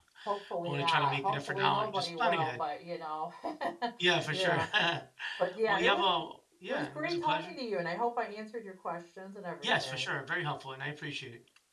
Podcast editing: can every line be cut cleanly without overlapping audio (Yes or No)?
No